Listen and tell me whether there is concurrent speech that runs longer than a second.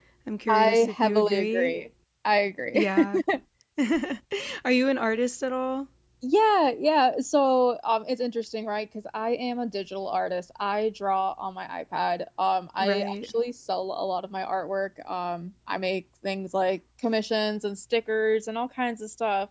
Yes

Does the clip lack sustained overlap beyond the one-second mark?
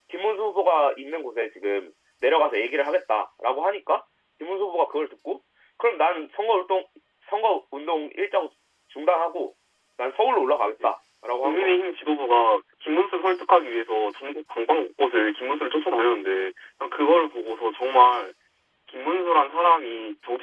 Yes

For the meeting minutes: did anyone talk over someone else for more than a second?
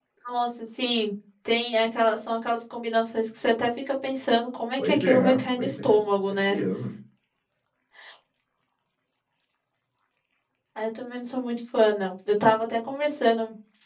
Yes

